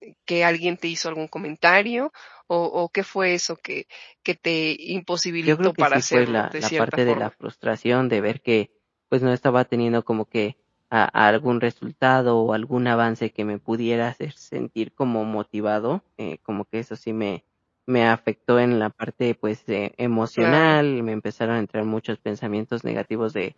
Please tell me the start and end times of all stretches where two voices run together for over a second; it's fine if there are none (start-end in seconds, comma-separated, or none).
5.5-7.3